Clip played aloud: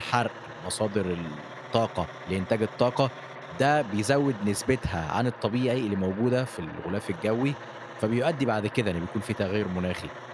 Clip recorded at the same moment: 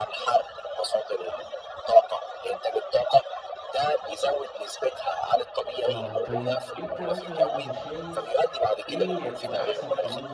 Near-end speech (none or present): present